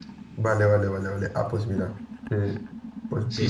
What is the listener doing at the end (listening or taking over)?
taking over